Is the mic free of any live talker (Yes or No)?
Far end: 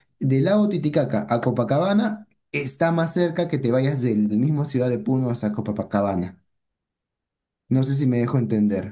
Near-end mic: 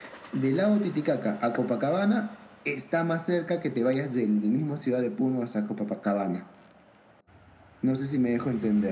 Yes